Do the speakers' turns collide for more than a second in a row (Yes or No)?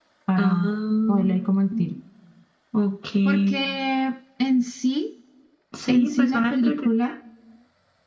Yes